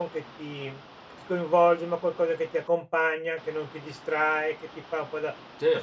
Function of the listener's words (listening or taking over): listening